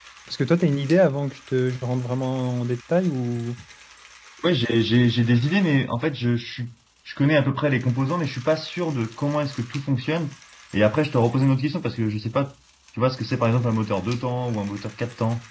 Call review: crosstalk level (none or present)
none